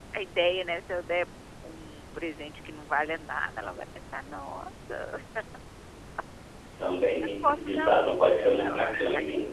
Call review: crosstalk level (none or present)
present